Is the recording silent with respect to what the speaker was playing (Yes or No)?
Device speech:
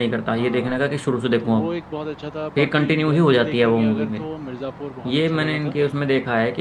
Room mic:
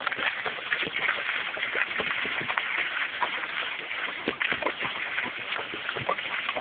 Yes